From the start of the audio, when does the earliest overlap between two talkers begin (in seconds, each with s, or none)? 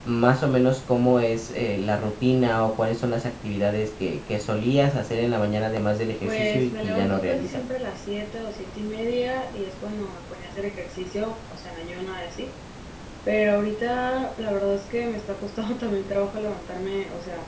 6.2 s